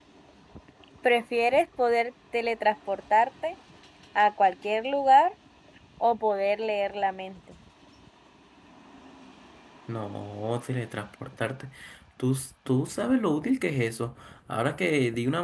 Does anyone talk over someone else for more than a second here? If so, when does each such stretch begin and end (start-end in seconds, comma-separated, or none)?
none